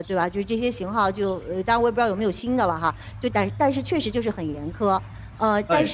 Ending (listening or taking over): listening